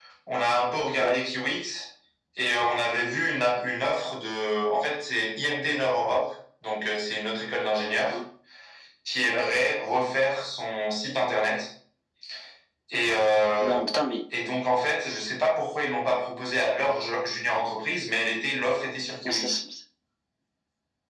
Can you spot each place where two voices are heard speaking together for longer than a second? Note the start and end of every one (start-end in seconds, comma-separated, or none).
none